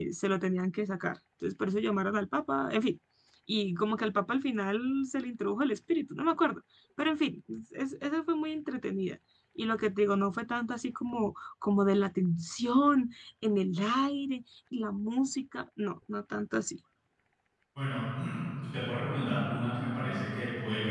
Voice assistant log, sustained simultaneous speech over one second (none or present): none